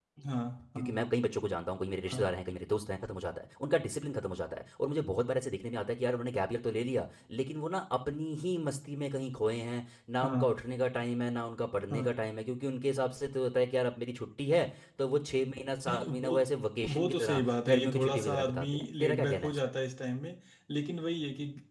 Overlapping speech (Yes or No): Yes